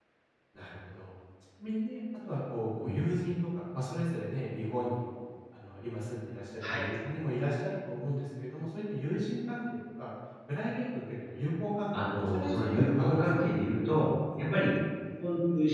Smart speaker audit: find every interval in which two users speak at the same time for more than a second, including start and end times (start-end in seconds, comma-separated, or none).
12.2-13.5